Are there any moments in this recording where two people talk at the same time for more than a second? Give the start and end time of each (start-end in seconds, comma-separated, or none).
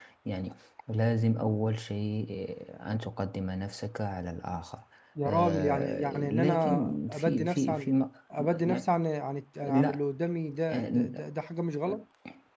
5.2-7.9